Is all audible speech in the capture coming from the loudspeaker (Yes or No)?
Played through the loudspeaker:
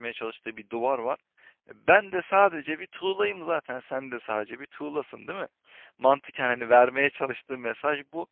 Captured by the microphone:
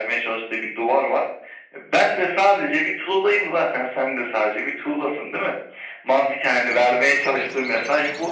Yes